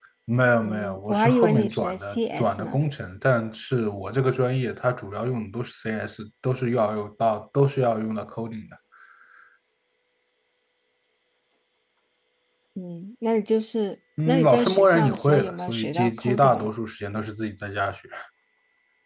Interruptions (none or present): present